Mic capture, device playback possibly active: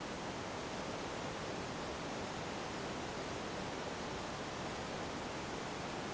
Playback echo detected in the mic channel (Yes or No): No